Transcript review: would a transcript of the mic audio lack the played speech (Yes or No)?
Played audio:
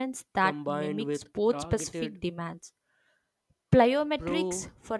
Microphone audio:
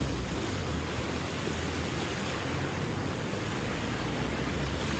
Yes